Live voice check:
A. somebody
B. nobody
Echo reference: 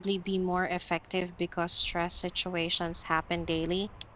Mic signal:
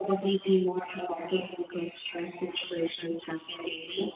B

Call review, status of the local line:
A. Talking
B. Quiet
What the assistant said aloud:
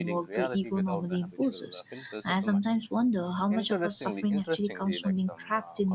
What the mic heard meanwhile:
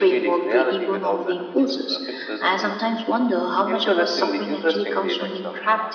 B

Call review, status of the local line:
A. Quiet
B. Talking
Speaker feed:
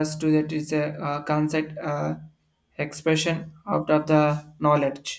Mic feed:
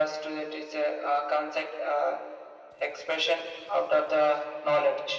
A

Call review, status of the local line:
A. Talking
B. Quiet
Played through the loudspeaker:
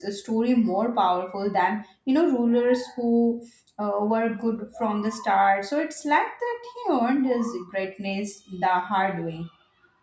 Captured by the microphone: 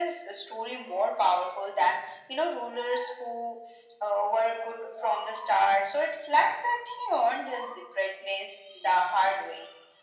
B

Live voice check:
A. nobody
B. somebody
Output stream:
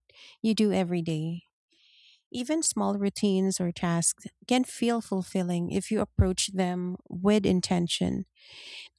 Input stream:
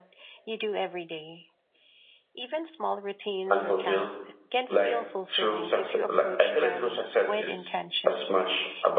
B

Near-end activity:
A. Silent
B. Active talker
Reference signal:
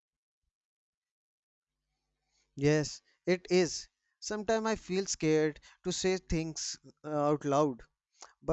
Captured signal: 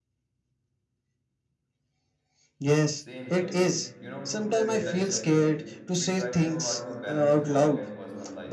B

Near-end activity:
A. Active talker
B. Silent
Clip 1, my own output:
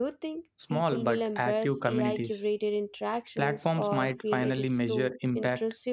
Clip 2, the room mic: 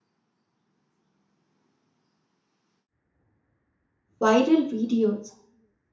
A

